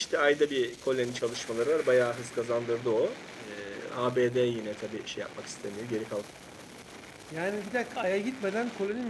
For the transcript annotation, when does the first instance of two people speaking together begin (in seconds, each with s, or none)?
none